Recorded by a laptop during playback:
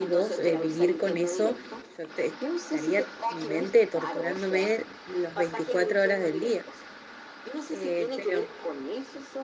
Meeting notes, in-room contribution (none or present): present